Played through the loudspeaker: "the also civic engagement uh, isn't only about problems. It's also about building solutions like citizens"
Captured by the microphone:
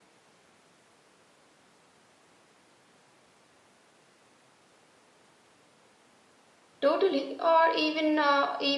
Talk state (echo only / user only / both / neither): user only